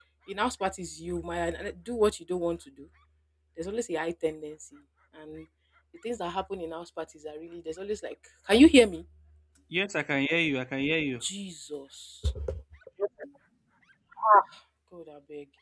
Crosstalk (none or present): none